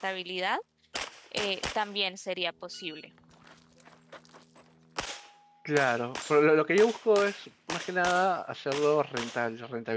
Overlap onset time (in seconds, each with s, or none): none